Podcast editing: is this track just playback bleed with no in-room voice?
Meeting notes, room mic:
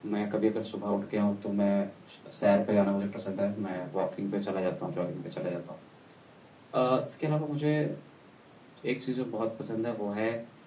Yes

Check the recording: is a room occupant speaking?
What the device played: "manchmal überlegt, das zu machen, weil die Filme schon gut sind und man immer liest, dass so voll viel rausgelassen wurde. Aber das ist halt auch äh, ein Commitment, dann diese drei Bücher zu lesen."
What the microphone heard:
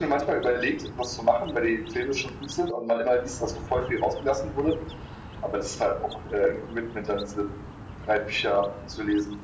No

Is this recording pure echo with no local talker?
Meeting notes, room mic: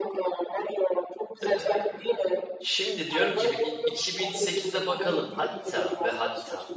No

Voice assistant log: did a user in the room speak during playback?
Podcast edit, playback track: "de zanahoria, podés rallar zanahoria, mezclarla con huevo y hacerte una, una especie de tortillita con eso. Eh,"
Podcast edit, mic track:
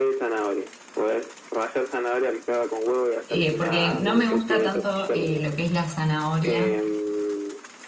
Yes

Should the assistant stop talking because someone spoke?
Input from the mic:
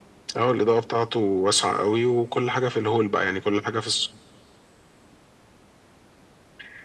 No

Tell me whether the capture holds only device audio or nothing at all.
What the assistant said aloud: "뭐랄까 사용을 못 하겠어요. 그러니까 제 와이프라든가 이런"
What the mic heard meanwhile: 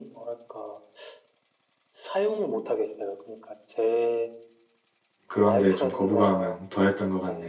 No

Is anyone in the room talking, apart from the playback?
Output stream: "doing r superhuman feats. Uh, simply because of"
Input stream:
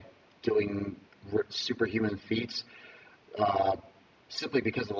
No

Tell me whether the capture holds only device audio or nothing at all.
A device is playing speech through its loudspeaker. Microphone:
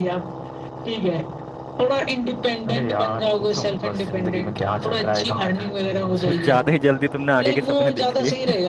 No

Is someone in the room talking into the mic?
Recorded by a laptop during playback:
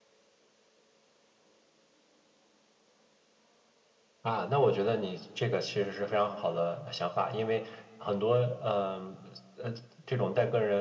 No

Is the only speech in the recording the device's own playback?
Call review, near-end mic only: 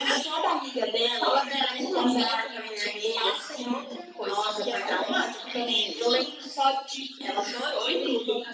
Yes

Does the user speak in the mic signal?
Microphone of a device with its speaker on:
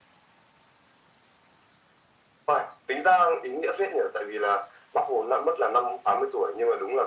No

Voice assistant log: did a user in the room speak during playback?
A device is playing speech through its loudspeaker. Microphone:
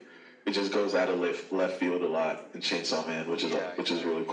Yes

